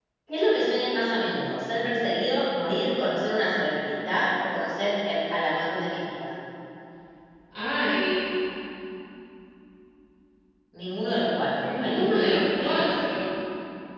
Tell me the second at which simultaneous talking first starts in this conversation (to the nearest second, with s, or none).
12 s